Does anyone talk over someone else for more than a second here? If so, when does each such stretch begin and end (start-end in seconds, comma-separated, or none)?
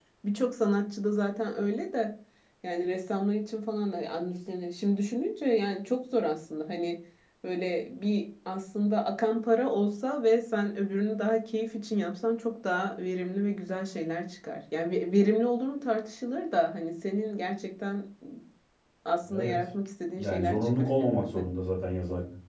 20.2-21.4